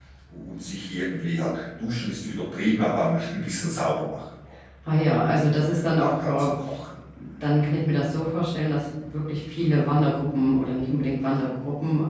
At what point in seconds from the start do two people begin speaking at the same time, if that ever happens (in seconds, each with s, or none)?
4.8 s